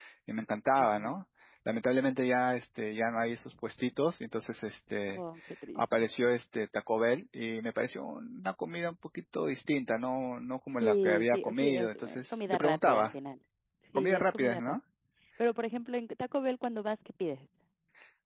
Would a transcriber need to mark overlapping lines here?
Yes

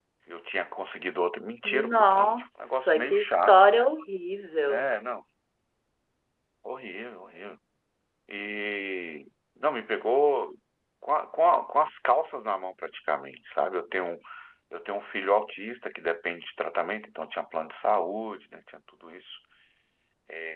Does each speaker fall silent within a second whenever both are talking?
No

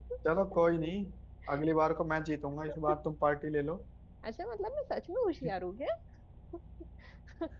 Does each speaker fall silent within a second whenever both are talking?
Yes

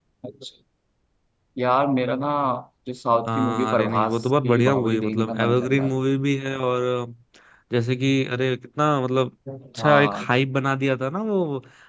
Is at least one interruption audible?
Yes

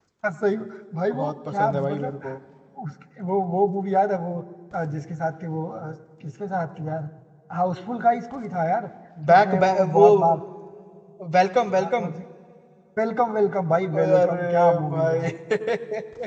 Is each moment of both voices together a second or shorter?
No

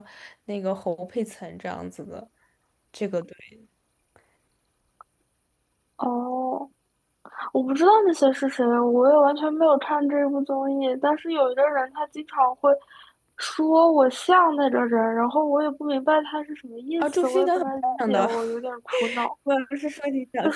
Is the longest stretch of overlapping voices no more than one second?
No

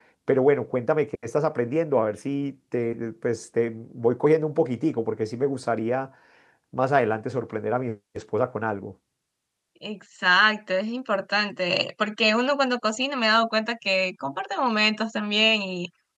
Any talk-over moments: No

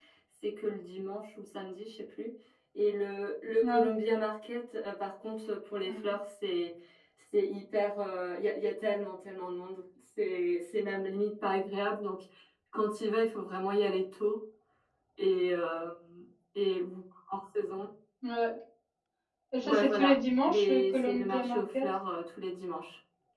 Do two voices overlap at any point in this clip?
Yes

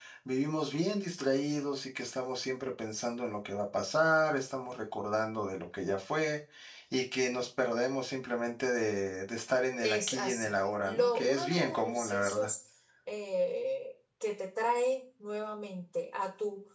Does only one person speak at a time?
No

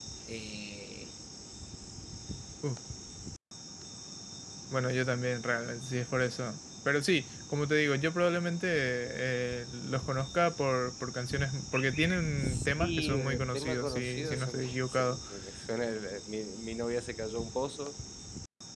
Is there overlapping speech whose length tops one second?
Yes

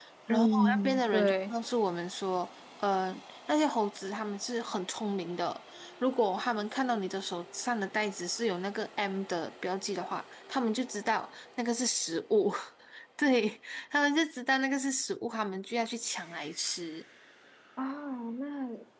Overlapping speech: Yes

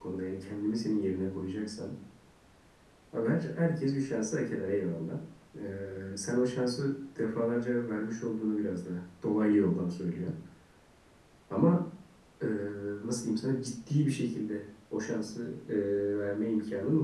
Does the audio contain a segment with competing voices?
No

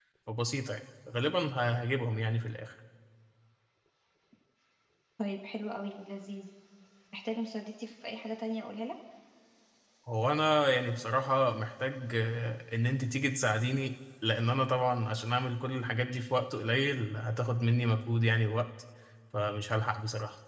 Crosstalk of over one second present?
No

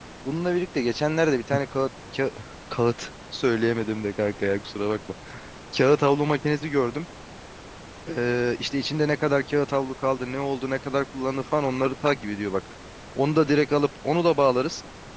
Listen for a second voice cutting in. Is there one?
No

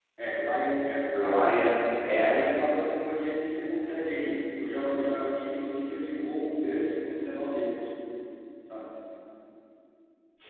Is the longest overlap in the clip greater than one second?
No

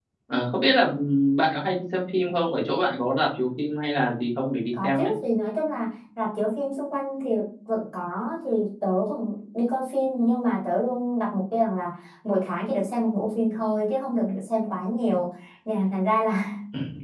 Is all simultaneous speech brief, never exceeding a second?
Yes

